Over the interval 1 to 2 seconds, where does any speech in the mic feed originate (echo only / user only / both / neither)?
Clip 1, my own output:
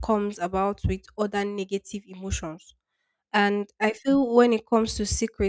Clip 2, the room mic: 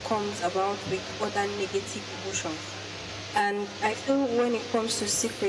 echo only